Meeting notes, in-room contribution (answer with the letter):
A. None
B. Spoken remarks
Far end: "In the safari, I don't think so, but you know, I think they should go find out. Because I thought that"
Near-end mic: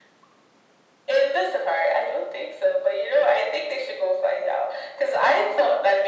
A